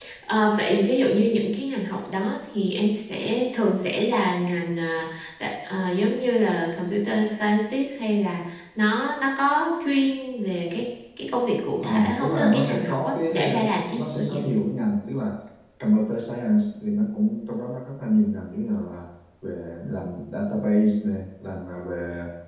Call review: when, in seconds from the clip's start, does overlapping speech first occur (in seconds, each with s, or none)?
11.8 s